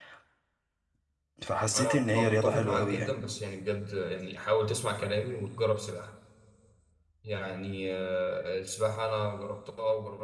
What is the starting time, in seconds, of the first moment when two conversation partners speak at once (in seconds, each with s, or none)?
1.8 s